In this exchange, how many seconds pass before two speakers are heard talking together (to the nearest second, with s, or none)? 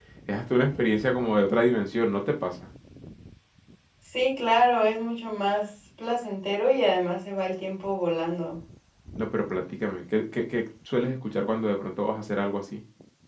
none